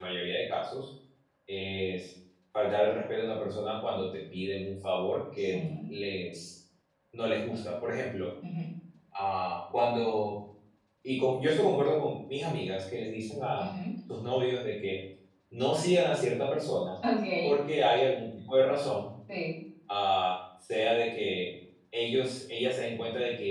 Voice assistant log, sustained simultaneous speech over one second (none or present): none